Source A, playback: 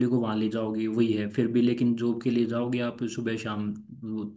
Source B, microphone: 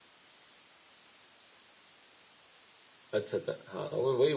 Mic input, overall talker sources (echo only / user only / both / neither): user only